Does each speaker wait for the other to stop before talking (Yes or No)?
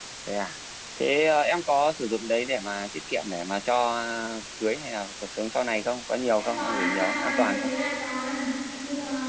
No